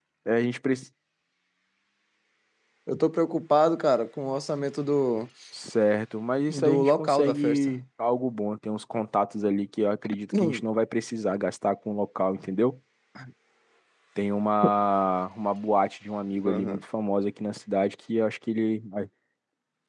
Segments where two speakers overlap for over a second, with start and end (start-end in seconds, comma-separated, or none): 6.5-7.8